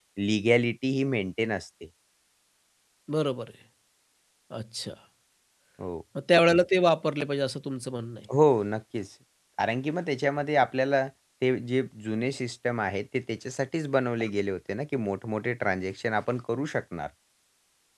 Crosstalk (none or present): none